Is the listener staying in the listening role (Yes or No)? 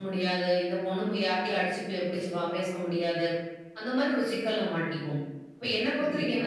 Yes